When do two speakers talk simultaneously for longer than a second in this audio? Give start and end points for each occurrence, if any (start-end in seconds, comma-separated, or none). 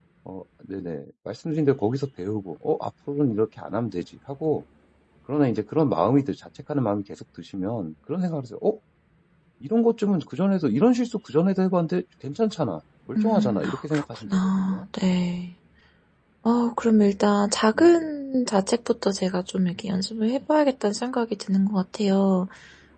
13.2-14.8